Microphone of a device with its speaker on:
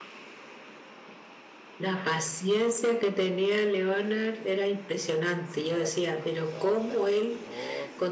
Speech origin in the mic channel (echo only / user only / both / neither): both